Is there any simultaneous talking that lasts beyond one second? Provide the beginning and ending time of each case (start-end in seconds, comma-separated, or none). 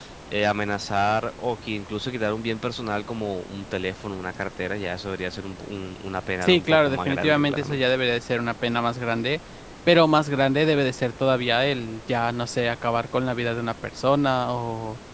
6.4-7.8